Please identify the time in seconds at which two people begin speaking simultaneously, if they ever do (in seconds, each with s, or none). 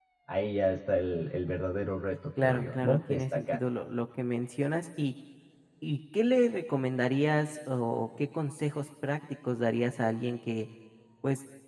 2.4 s